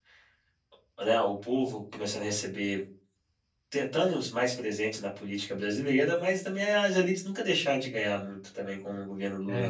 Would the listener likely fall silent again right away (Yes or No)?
No